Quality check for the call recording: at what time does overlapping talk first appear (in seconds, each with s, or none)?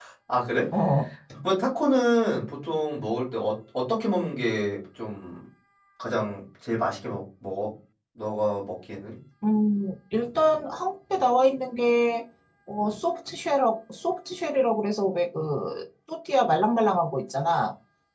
none